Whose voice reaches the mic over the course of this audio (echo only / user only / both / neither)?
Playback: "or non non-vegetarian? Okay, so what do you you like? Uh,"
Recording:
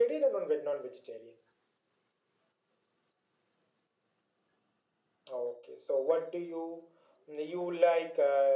echo only